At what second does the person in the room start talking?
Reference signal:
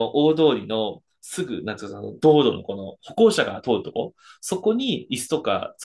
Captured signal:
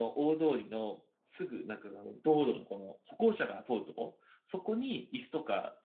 none

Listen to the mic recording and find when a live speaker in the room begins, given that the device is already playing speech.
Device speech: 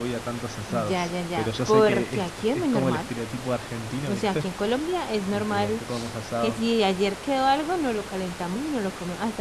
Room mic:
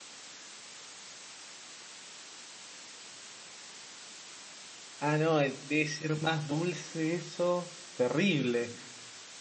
5.0 s

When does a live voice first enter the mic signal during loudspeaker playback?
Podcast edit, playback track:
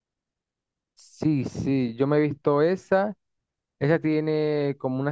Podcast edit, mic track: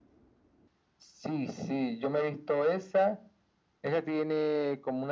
none

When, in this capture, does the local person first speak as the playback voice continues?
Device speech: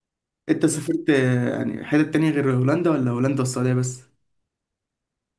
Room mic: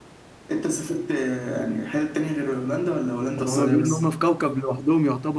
3.4 s

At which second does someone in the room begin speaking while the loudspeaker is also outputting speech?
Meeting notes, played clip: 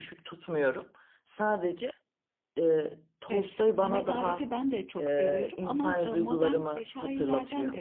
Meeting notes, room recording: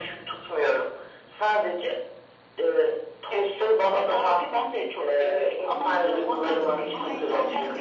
6.0 s

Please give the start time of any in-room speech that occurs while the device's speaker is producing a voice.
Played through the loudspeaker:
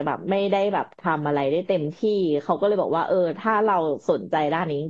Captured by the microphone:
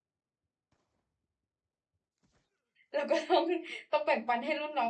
2.9 s

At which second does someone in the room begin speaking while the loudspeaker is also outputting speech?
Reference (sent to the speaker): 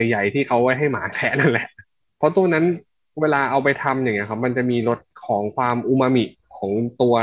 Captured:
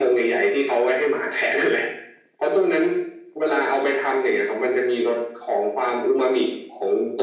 none

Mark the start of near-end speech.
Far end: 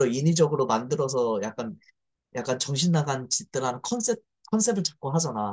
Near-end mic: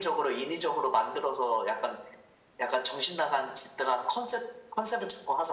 none

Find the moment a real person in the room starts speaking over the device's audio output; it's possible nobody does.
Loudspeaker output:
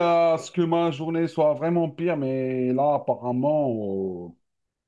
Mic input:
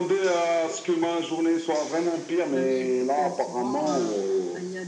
2.5 s

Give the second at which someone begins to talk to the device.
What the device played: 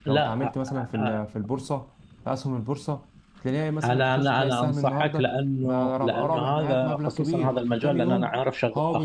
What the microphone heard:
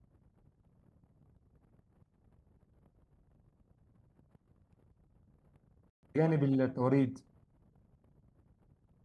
6.2 s

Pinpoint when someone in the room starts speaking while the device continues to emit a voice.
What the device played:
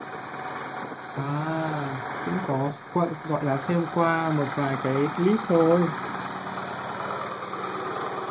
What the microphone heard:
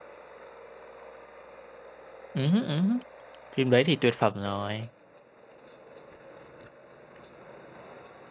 2.3 s

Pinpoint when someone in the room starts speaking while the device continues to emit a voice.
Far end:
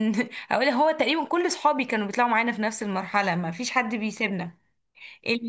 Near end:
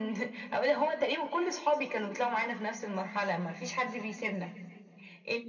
none

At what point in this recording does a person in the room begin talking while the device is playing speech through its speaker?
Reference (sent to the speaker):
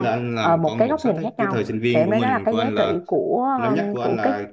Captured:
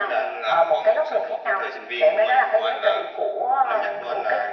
none

